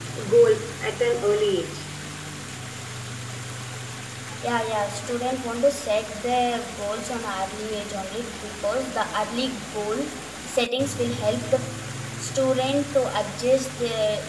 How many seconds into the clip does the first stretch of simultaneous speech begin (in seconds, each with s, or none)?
none